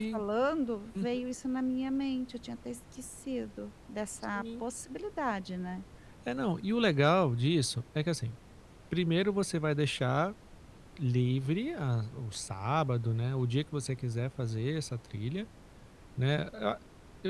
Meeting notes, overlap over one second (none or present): none